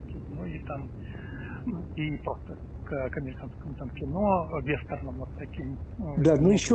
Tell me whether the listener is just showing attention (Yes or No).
No